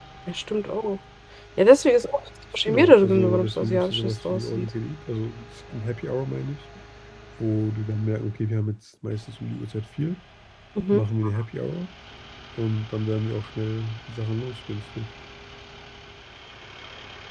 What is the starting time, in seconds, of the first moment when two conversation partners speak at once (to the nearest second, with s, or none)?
3 s